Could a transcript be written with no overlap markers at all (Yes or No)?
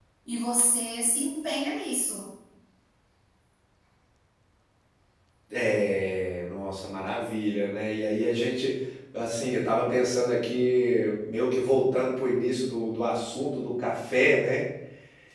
Yes